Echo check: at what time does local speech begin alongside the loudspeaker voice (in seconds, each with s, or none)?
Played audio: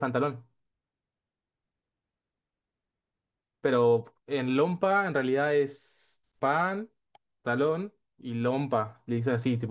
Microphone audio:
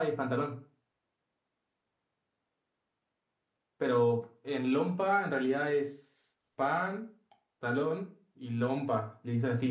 none